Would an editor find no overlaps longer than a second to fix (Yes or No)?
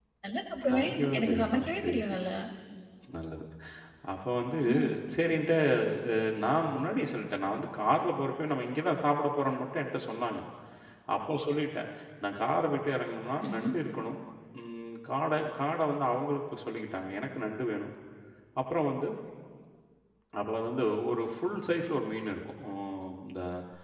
No